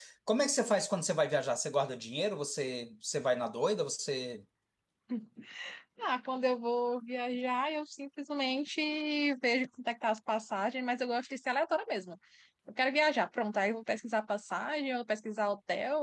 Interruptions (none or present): none